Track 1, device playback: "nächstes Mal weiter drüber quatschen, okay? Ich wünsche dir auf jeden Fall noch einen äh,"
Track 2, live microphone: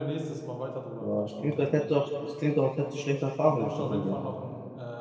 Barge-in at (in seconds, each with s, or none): 0.9 s